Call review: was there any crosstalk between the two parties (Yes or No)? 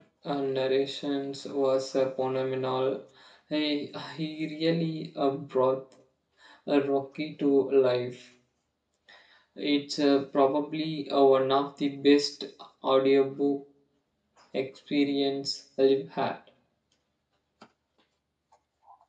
No